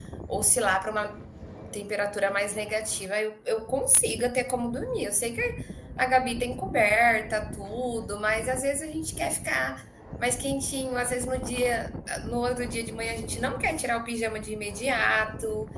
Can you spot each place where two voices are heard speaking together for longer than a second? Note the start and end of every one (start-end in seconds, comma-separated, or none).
none